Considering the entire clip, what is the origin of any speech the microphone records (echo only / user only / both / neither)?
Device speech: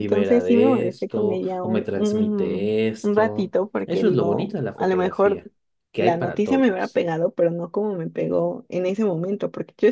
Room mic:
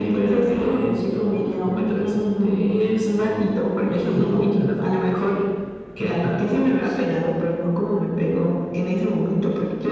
both